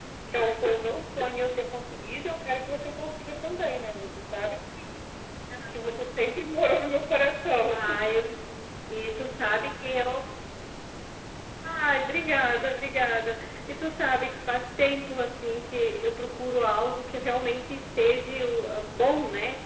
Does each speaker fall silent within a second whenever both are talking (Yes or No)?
Yes